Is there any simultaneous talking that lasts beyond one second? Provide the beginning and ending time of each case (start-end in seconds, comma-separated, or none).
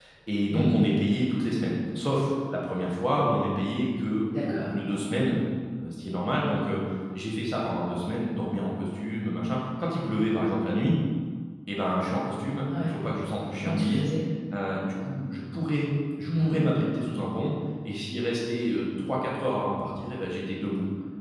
none